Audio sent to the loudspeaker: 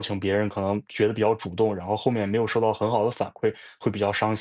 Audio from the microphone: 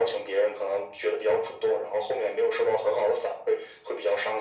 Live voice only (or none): none